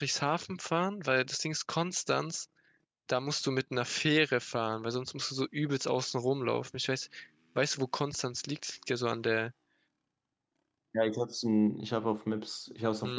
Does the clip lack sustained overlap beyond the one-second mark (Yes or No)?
Yes